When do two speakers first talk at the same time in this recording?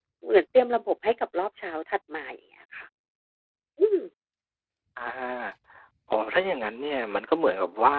none

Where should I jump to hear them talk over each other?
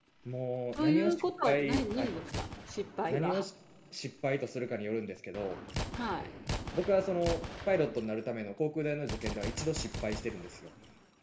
0.7 s

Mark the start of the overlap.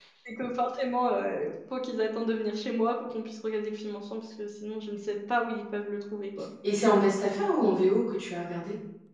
none

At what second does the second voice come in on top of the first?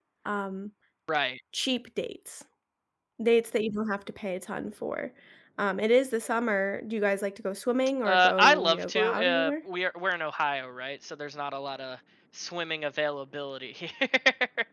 8.0 s

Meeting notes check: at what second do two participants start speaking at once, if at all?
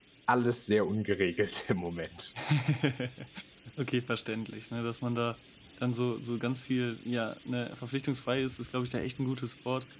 none

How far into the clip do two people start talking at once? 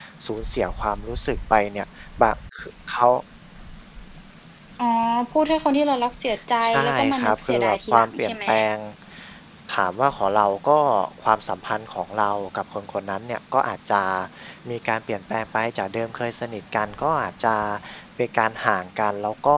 6.6 s

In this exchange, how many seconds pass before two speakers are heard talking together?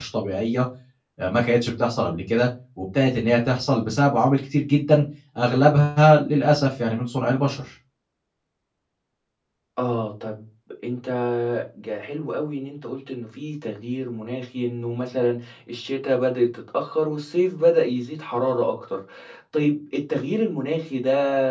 none

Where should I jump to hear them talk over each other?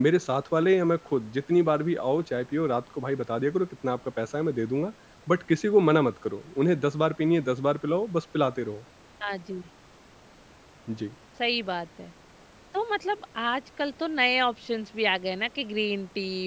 none

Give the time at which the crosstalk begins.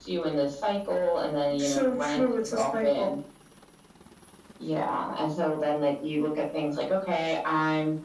1.5 s

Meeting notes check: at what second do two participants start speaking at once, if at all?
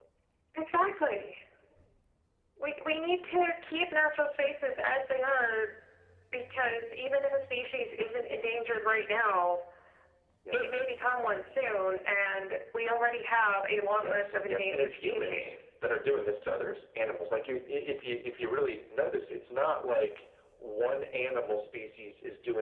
14.0 s

